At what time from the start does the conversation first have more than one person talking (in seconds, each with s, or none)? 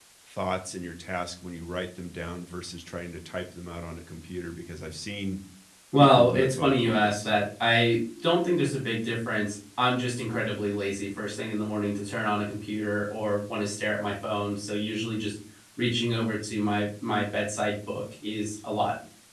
6.0 s